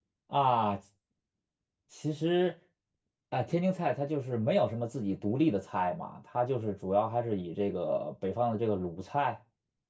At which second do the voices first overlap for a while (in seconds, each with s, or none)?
none